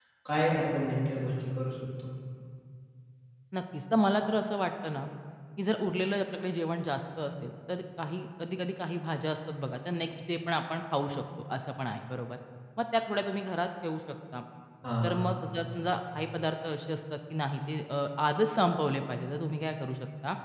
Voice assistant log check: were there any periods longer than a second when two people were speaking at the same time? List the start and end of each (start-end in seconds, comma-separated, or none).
none